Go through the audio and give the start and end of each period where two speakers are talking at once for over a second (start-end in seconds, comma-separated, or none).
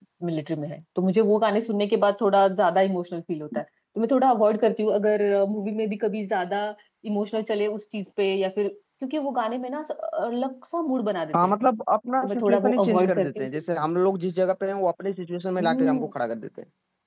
12.2-13.6